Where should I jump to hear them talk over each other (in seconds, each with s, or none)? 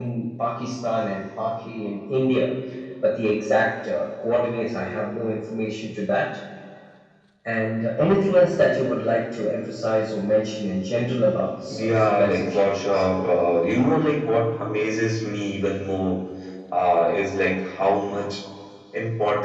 11.7 s